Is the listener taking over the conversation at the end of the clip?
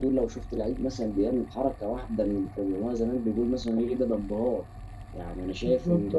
Yes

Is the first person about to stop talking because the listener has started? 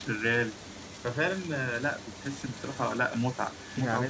Yes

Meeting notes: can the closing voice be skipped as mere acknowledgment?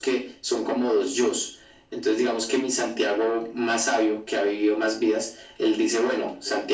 Yes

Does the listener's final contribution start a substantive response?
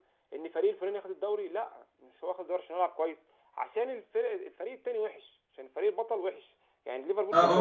Yes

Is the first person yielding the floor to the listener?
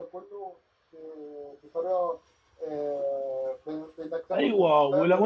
Yes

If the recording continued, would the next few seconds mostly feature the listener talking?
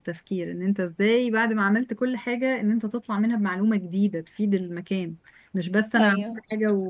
No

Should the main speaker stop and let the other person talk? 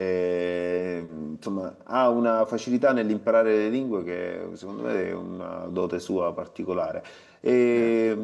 No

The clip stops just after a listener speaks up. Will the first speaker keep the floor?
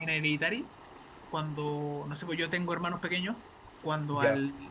Yes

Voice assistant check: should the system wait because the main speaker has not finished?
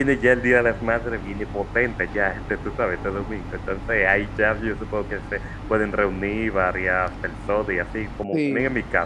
Yes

